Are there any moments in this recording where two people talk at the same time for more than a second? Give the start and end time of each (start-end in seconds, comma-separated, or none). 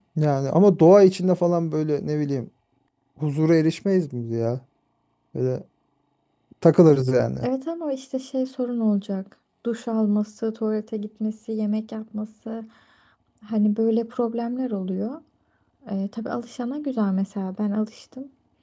none